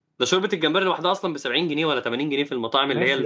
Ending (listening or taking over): taking over